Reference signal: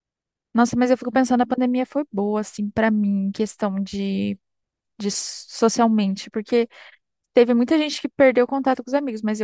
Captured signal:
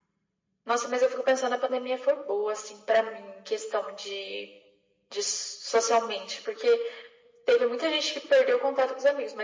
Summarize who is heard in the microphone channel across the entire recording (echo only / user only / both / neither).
echo only